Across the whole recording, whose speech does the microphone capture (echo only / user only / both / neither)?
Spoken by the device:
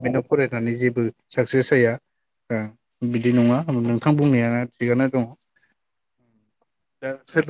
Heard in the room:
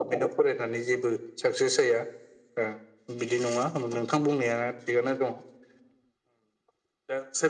echo only